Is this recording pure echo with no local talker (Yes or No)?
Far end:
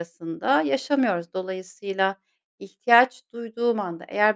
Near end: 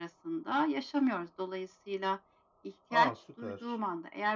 No